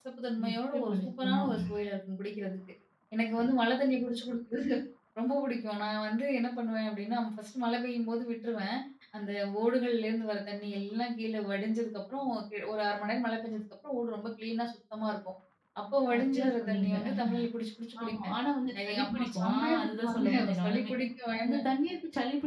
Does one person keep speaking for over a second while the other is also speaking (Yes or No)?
Yes